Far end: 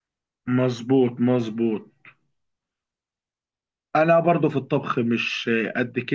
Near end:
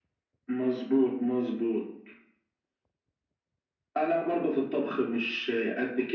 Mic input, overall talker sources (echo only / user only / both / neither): echo only